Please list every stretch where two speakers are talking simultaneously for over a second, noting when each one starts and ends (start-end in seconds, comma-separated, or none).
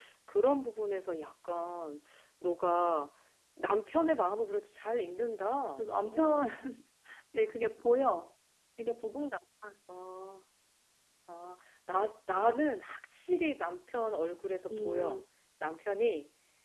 none